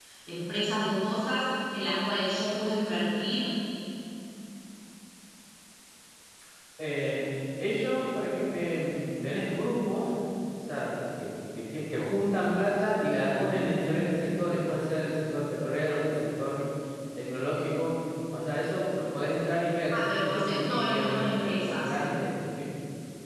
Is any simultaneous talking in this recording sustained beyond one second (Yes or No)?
Yes